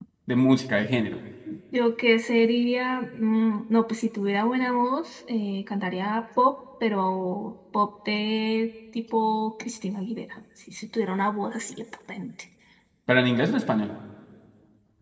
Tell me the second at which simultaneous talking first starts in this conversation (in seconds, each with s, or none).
none